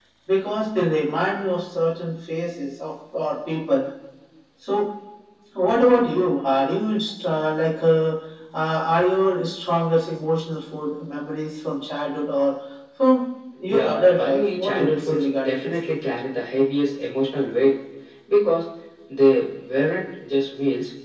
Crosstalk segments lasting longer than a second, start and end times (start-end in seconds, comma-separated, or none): 13.7-15.7